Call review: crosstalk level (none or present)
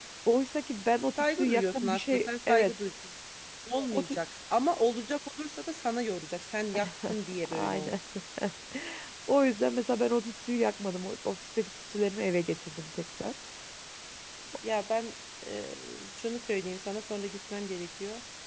present